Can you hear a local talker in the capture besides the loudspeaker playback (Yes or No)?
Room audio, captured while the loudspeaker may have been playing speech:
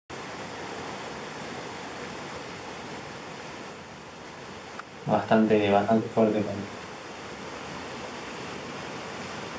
Yes